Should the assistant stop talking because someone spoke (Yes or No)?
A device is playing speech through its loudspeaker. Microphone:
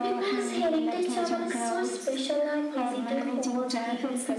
Yes